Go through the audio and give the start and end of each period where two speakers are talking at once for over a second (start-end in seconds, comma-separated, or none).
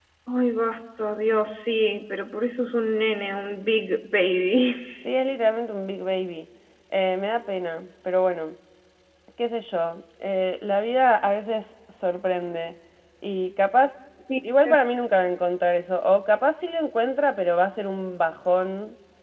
none